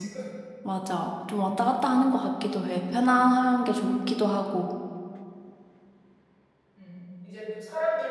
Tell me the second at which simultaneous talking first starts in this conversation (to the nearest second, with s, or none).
none